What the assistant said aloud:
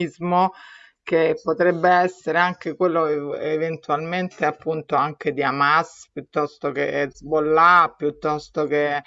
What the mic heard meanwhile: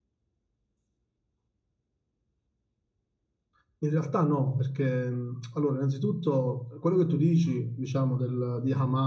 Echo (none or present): none